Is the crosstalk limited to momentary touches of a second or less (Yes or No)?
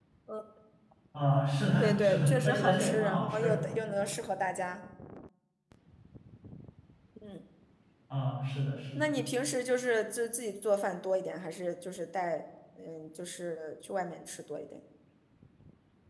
No